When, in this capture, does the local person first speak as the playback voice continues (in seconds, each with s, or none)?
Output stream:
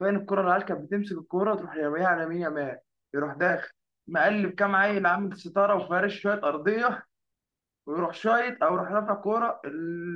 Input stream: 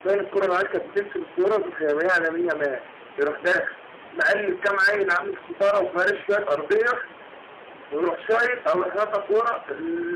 none